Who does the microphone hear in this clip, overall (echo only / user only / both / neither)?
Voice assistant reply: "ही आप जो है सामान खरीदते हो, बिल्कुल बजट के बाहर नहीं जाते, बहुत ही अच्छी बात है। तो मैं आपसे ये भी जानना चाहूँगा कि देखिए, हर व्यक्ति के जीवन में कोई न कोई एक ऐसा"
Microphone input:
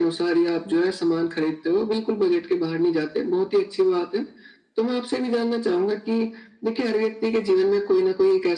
echo only